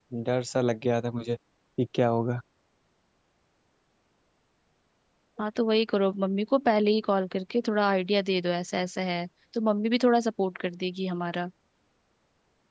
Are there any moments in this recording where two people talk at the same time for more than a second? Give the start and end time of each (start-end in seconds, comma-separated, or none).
none